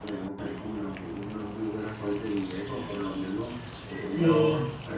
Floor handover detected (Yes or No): No